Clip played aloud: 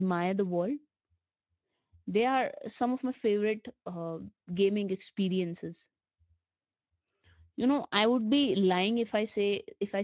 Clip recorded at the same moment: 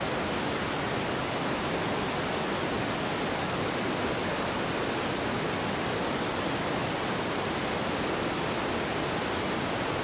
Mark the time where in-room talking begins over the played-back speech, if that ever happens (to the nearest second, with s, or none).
none